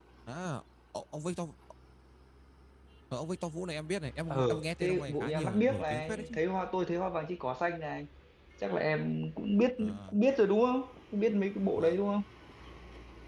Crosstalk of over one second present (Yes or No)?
Yes